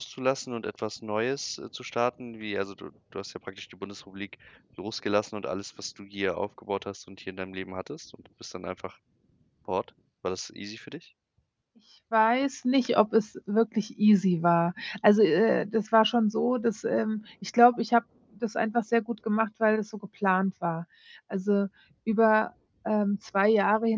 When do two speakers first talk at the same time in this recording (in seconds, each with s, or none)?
none